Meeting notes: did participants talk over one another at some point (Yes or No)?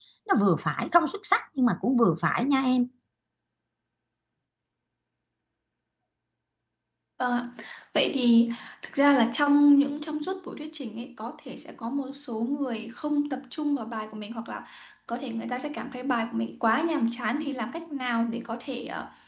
No